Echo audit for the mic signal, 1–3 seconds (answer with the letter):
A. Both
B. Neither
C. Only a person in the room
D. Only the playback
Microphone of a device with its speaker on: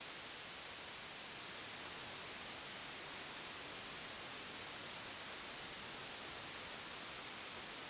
B